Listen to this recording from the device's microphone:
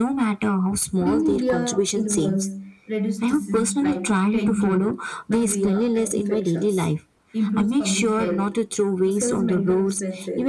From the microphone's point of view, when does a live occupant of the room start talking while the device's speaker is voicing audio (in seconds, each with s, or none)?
none